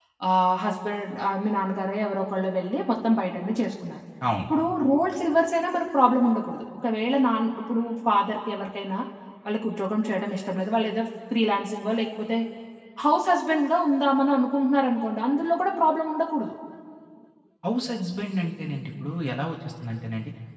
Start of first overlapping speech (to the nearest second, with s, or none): none